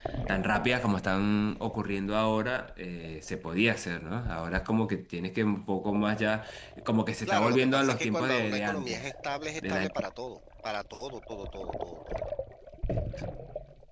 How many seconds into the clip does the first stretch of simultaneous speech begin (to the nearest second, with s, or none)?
7 s